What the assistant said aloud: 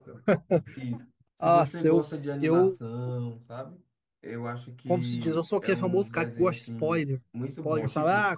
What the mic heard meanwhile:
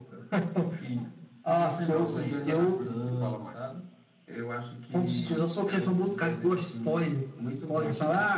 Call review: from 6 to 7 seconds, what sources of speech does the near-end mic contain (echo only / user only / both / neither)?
echo only